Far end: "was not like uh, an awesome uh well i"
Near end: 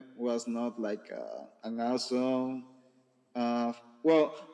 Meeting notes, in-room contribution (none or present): none